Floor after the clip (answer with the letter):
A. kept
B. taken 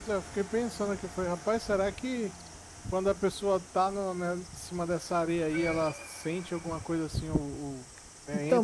B